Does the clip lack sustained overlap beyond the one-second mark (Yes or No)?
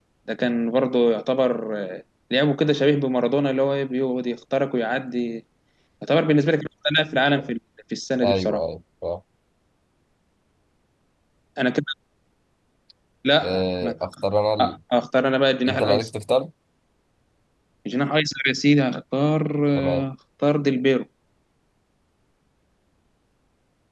Yes